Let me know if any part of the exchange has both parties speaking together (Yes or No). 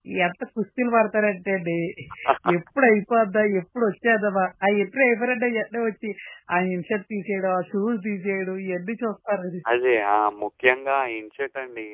No